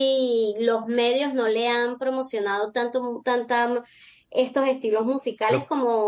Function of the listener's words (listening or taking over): listening